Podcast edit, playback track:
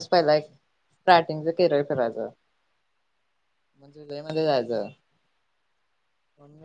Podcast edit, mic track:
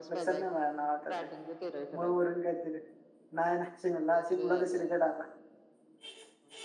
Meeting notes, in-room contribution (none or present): present